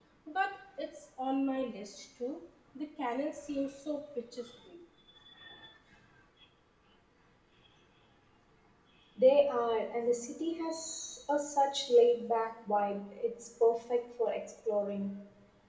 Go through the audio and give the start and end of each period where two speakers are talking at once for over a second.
none

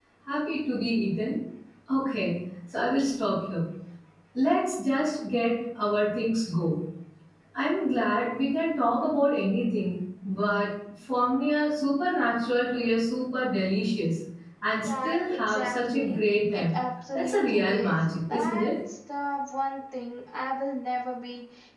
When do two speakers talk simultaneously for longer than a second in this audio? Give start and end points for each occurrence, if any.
14.8-16.7, 17.1-18.7

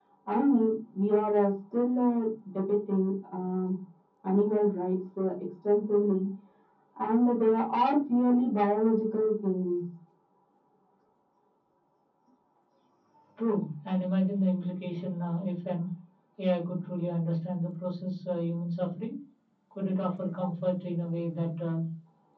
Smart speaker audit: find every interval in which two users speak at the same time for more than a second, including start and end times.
none

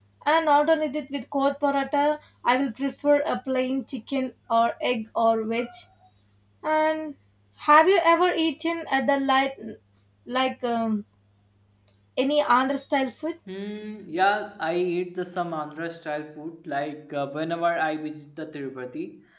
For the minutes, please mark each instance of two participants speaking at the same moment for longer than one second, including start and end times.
none

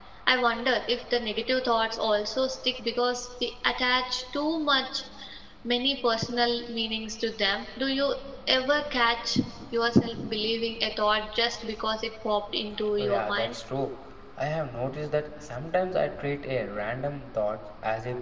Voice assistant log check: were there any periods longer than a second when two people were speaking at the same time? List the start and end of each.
none

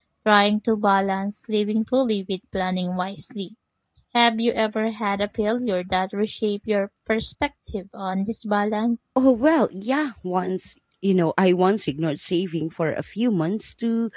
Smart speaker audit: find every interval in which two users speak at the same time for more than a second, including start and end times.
none

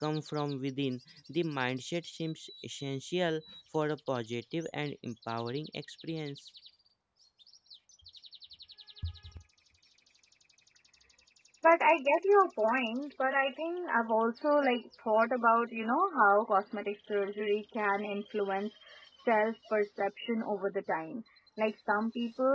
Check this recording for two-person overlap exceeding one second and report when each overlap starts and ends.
none

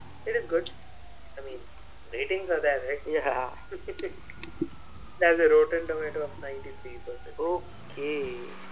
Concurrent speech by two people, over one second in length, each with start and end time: none

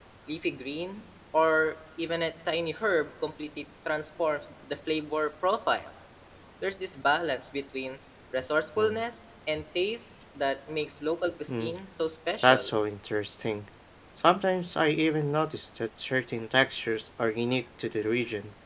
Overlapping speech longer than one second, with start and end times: none

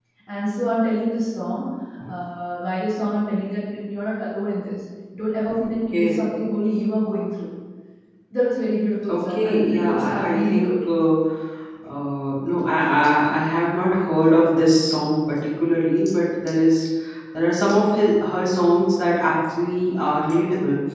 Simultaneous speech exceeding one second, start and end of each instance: 9.1-10.7

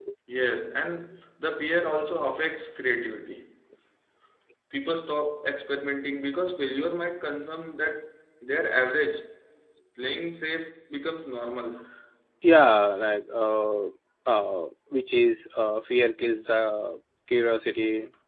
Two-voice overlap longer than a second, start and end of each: none

